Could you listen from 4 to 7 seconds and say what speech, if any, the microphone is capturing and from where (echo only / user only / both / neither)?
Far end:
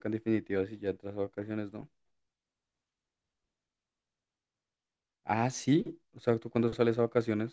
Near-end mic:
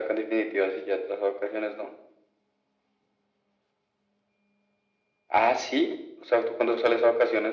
echo only